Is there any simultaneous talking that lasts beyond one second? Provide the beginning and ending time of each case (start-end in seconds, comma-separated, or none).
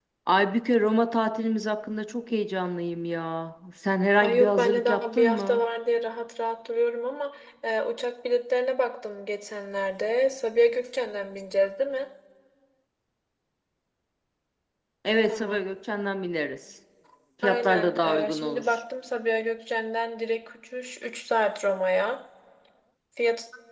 4.2-5.6, 17.4-18.8